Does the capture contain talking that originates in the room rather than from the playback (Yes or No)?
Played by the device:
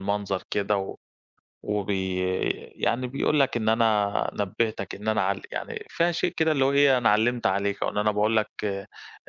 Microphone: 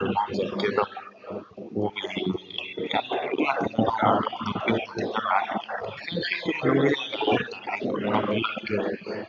No